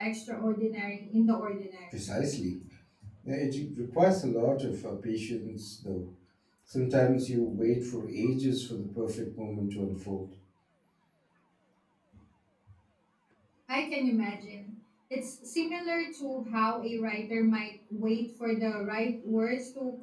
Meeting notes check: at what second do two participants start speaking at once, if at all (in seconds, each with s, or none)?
none